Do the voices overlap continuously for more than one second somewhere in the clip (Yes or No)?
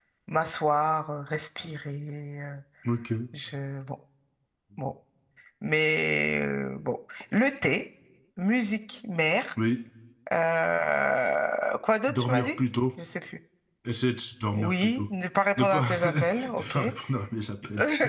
Yes